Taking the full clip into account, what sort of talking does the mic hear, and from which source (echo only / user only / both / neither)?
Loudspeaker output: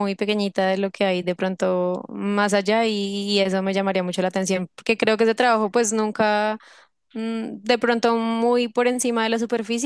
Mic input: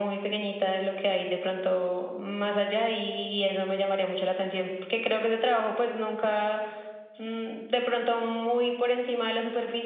echo only